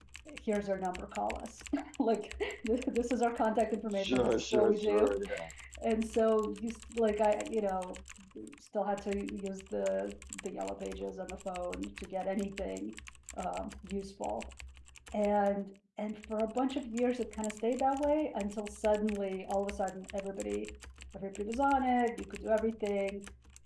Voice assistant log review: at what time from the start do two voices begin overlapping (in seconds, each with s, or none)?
4.0 s